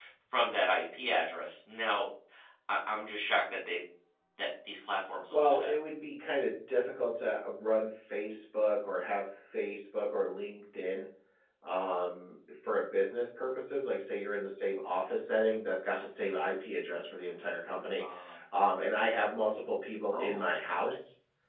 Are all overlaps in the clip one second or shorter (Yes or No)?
Yes